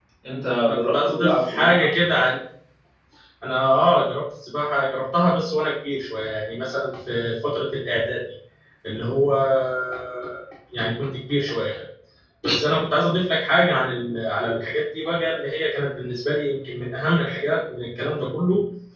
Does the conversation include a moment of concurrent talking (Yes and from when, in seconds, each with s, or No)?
Yes, from 0.7 s